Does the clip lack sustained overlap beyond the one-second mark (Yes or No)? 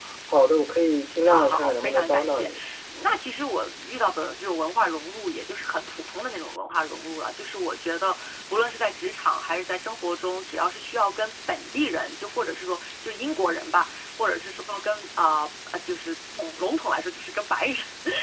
No